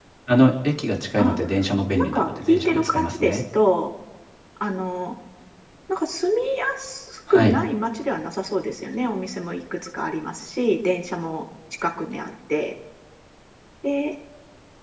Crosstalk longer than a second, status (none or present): present